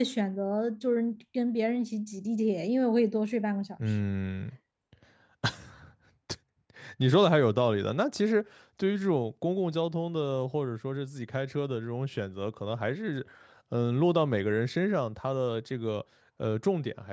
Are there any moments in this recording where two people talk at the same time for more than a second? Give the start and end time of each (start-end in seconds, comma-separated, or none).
none